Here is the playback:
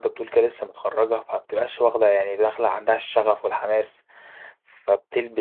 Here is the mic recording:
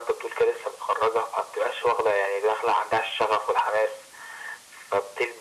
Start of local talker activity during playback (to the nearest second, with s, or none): none